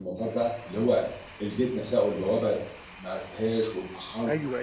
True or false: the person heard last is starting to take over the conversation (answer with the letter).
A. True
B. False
A